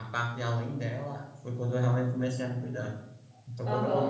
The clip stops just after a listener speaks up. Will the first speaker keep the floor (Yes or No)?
No